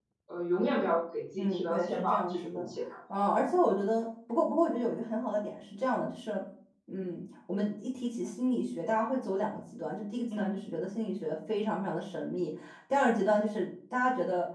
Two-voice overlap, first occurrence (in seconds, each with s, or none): 1.4 s